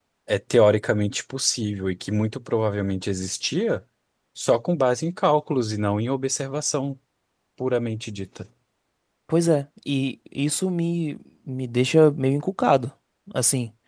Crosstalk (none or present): none